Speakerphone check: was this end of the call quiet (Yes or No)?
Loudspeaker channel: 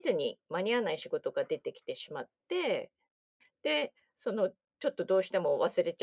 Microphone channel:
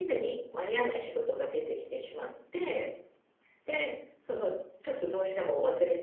Yes